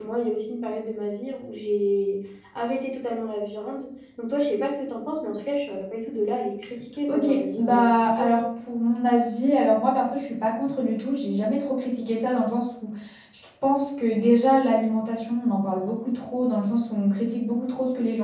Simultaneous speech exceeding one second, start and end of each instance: 7.1-8.4

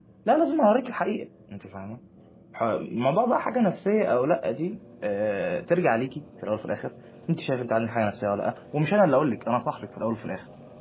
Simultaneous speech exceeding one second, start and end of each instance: none

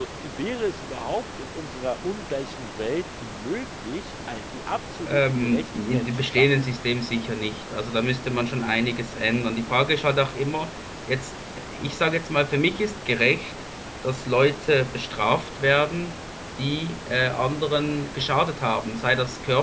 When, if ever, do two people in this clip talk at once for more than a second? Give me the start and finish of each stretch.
5.0-6.7

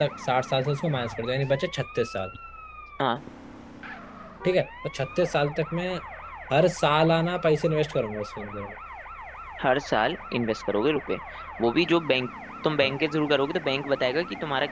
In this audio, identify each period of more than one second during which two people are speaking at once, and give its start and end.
none

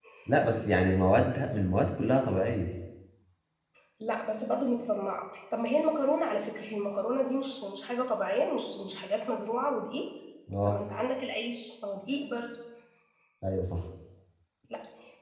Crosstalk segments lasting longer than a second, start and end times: none

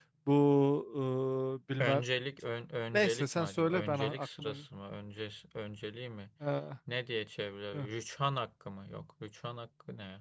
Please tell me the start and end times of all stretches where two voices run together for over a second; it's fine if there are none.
2.9-4.5

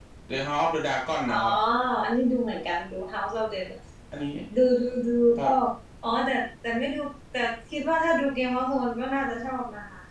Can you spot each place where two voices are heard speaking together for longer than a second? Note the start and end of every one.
none

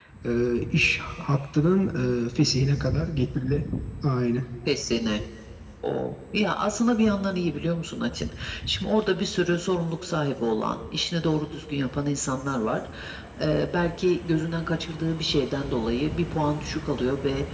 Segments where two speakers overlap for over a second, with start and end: none

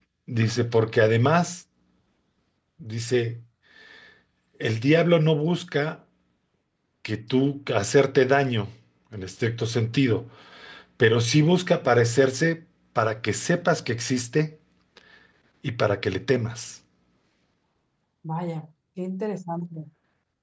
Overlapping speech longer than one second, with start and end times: none

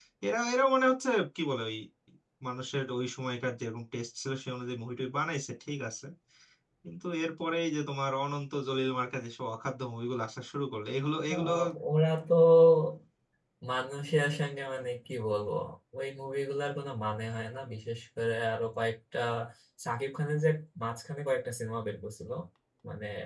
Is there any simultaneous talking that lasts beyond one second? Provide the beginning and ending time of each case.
none

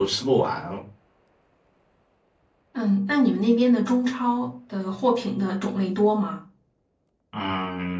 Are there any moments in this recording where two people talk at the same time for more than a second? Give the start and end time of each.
none

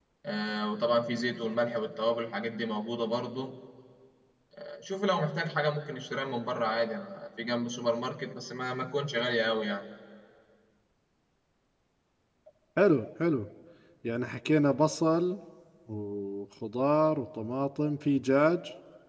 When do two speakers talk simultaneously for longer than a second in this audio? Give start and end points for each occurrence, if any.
none

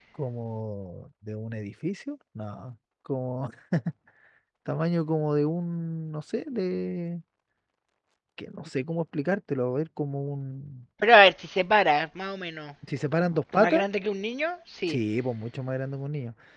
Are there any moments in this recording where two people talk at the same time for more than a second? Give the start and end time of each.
none

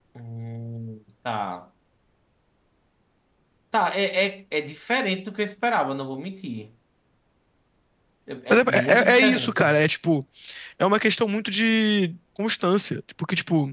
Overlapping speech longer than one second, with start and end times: 8.5-9.8

